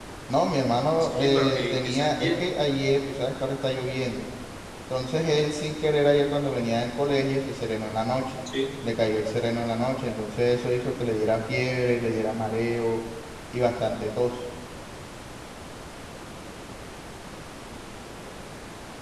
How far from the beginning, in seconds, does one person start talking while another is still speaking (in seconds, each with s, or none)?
1.0 s